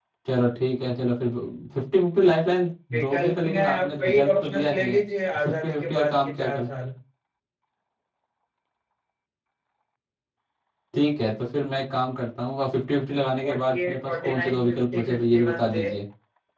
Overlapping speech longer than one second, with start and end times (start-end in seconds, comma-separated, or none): 2.9-5.0, 5.4-6.7, 13.4-15.8